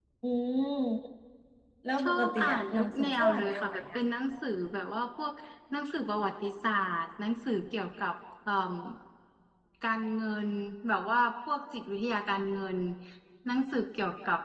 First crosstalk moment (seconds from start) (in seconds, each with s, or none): 2.0 s